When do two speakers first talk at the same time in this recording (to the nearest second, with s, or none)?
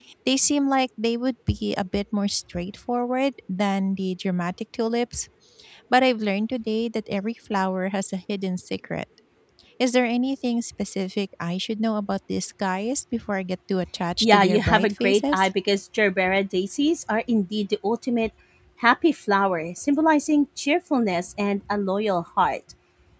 14 s